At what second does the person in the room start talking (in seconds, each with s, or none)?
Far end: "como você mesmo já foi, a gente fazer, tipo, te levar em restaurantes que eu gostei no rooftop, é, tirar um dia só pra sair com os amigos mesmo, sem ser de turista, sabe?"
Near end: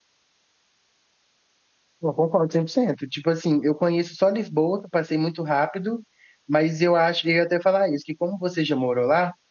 2.0 s